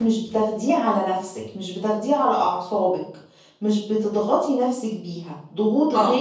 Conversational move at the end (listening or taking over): listening